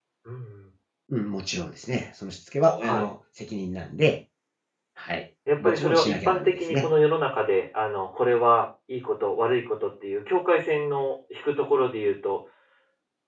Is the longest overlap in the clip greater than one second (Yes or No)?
Yes